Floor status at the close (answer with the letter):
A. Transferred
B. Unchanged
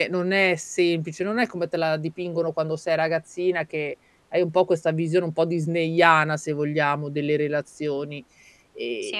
B